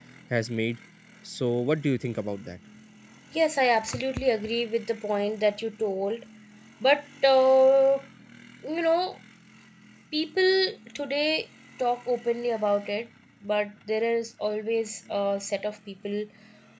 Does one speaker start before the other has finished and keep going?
No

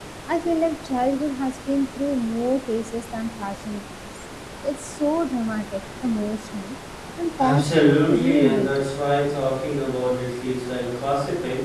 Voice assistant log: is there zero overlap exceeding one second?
No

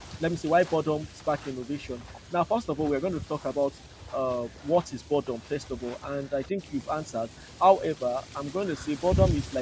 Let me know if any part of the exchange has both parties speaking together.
No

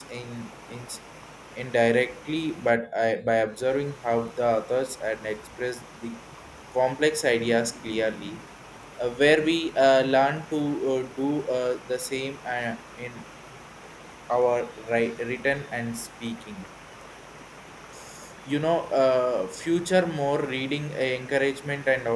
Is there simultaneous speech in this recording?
No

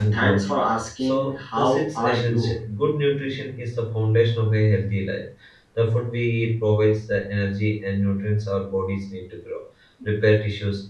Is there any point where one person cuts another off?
Yes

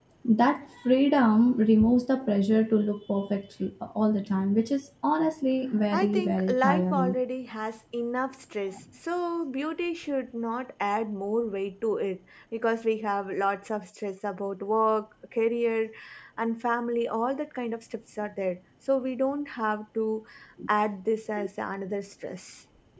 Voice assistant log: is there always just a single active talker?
No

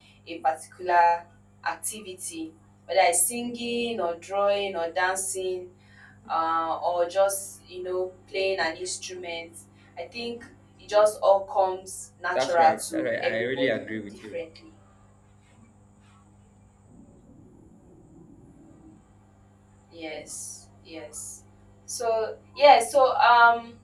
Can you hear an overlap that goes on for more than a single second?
Yes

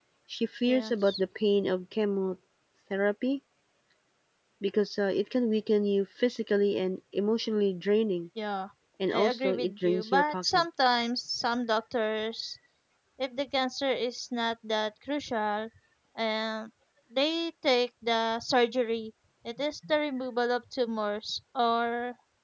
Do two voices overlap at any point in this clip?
Yes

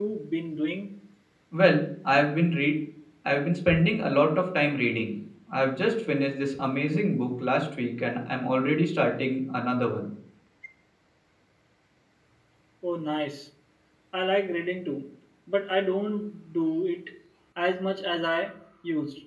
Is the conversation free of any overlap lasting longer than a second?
Yes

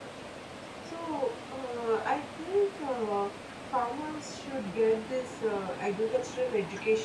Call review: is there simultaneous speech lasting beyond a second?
No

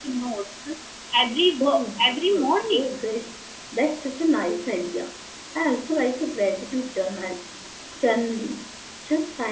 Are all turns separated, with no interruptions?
No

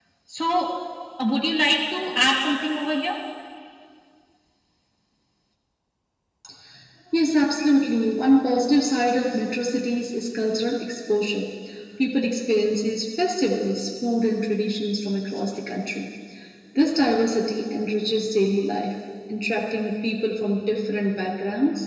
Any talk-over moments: No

